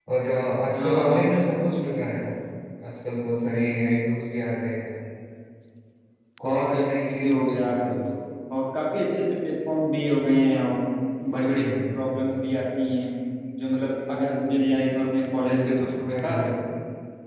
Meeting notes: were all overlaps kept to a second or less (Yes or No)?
No